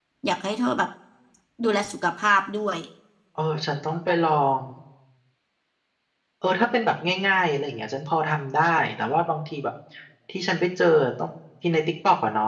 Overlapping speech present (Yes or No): No